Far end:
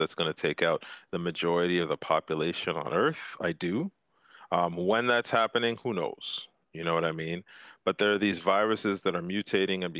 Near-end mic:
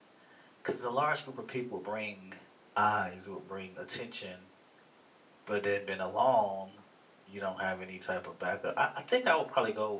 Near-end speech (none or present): present